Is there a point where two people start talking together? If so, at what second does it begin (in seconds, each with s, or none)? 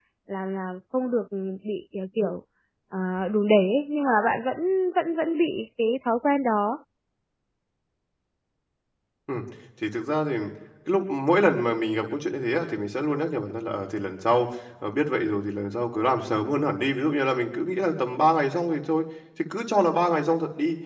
none